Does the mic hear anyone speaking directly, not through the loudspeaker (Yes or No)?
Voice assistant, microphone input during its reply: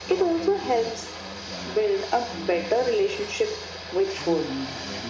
Yes